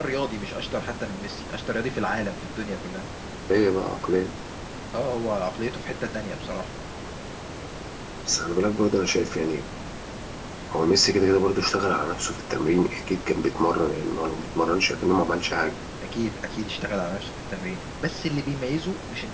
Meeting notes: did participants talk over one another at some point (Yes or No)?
No